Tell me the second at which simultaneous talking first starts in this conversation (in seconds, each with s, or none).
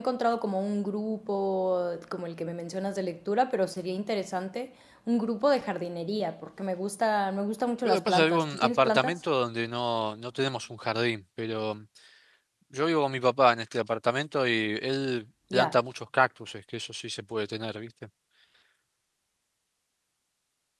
7.8 s